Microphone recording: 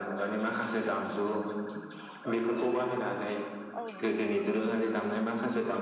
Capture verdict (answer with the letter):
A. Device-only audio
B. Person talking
B